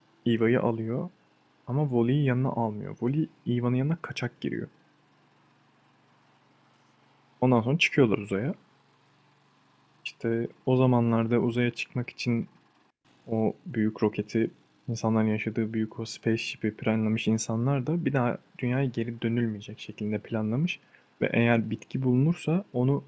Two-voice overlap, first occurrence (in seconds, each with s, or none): none